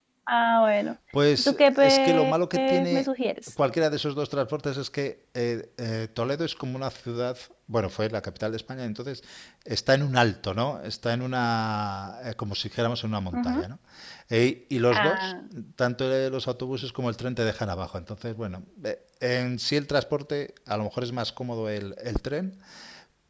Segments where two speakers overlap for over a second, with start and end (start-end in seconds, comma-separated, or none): 1.4-3.1